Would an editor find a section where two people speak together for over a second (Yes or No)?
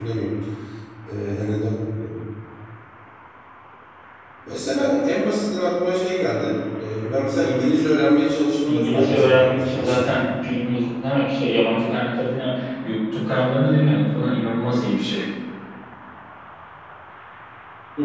Yes